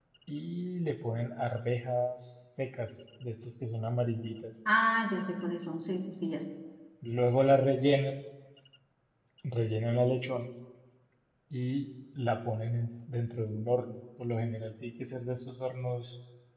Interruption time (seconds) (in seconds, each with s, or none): none